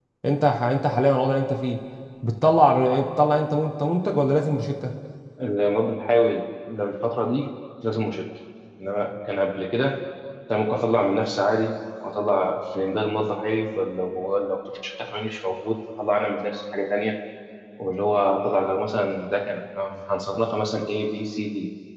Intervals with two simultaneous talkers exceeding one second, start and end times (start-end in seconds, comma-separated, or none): none